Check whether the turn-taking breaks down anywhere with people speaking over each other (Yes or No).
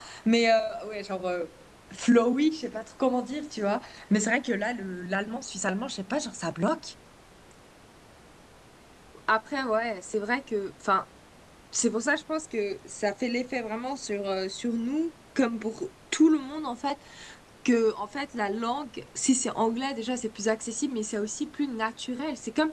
No